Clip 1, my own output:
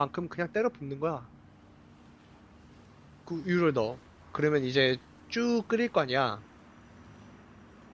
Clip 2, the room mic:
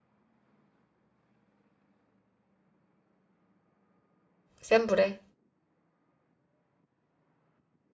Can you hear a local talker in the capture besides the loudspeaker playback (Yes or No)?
Yes